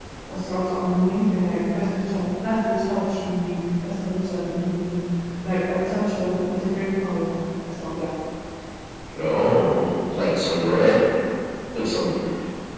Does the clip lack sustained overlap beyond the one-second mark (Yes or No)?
Yes